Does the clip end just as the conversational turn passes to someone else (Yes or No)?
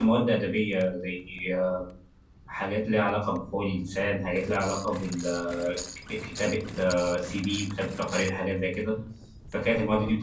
No